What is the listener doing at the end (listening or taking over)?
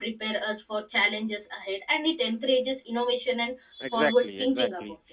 taking over